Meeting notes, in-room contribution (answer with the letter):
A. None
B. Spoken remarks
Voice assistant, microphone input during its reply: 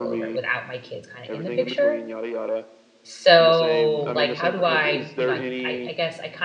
B